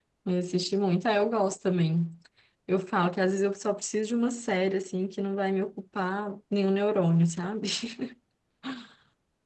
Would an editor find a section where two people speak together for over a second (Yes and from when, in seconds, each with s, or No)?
No